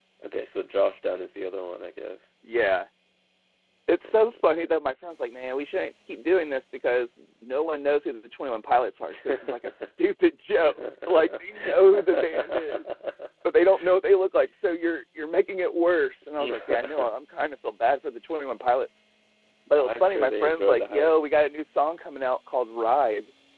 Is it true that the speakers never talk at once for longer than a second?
No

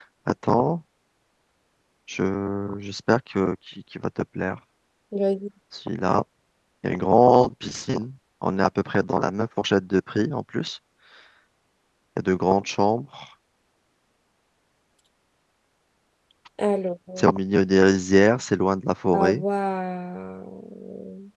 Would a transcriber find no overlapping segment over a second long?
Yes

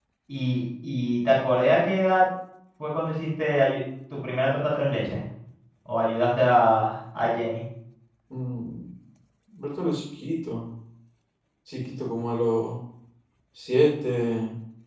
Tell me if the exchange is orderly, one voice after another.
Yes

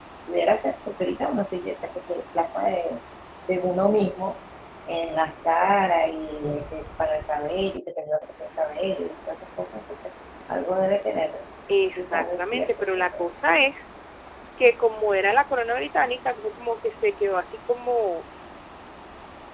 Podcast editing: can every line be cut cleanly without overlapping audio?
No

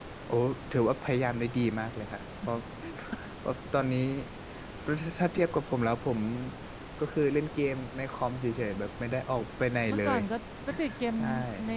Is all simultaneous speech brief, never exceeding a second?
Yes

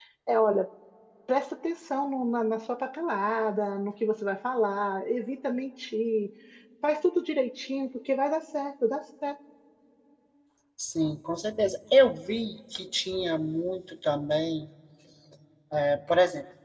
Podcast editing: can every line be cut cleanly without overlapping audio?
Yes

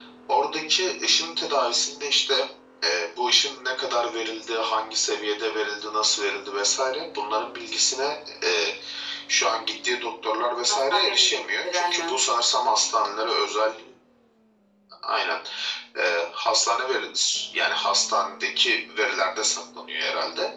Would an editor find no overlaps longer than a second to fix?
No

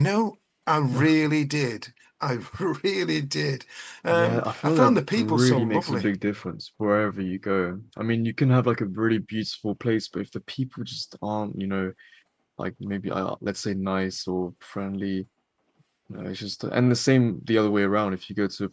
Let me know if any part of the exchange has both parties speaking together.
Yes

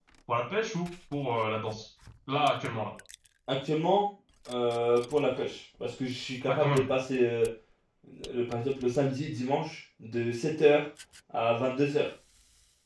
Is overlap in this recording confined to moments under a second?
Yes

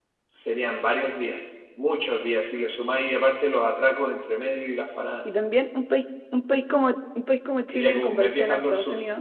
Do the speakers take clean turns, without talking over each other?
No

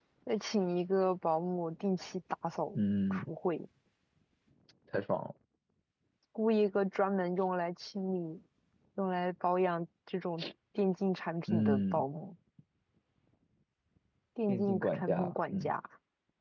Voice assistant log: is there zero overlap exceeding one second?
No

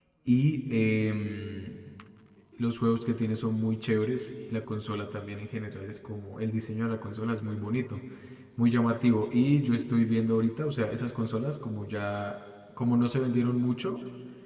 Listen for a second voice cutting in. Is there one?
No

